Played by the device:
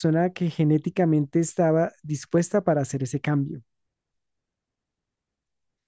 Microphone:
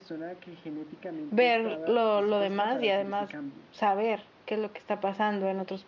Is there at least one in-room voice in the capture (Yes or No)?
Yes